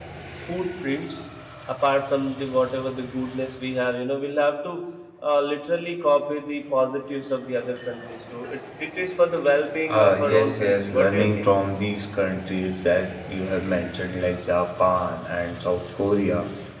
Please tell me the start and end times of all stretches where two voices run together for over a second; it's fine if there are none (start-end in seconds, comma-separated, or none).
9.8-11.5